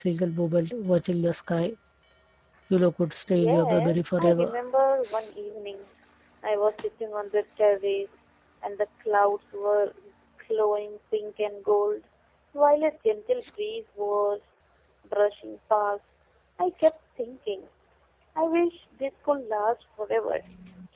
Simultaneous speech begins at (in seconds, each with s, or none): 3.3 s